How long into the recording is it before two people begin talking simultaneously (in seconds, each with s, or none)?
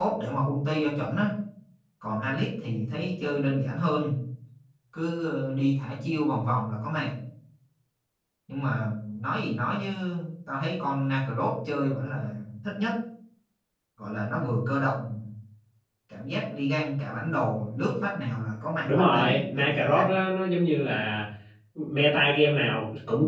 18.8 s